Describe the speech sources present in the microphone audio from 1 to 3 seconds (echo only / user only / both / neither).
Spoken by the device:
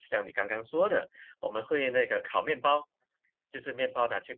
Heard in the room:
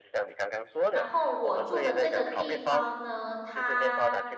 both